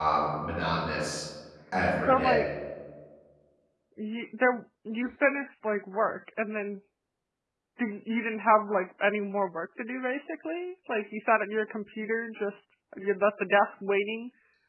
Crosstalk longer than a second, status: none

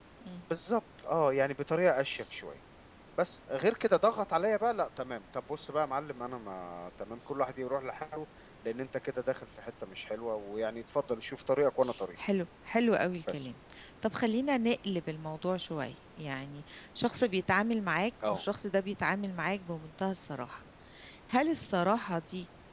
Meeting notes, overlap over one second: none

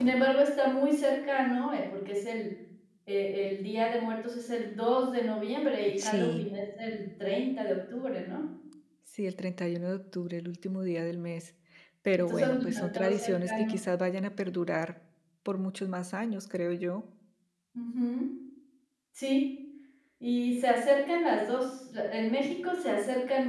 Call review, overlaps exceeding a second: present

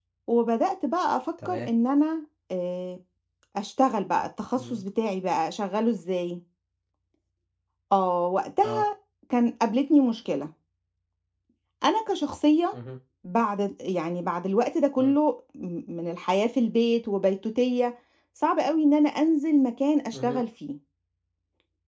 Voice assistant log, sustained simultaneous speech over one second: none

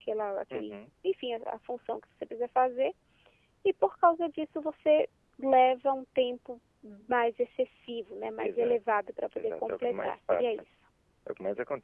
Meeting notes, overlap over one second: present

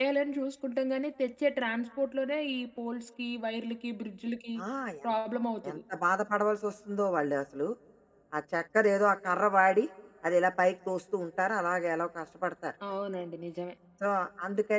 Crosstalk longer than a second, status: none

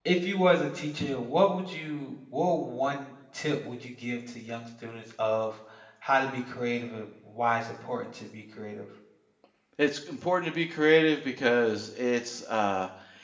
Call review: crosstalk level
none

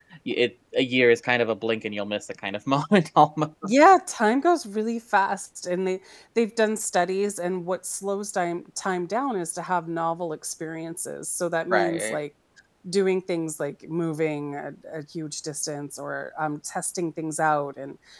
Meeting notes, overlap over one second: none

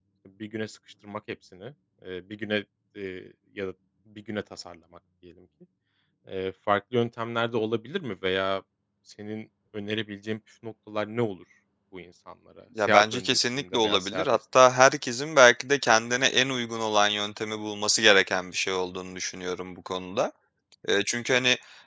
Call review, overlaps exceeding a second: present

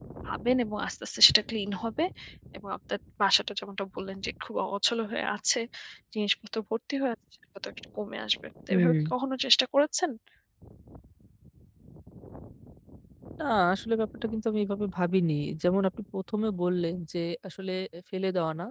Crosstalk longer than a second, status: none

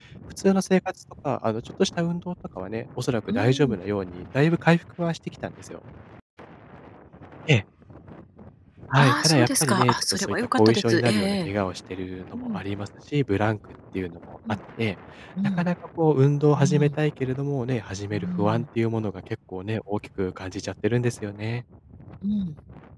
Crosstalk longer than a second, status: present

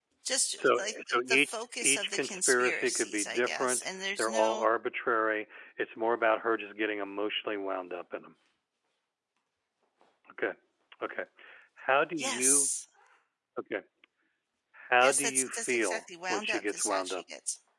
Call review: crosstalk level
present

